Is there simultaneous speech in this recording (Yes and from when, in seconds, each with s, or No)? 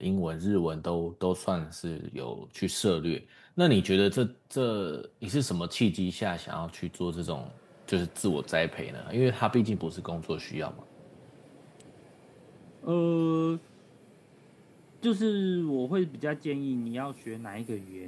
No